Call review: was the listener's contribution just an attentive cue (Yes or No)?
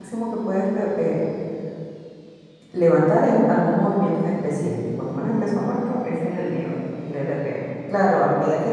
Yes